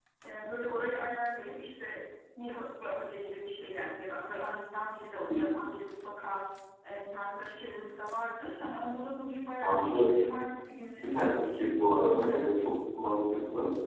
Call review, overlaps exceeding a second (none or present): none